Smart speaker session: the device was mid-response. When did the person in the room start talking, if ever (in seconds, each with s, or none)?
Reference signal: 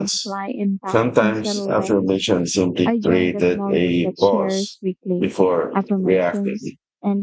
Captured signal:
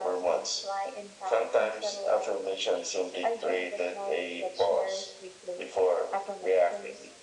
none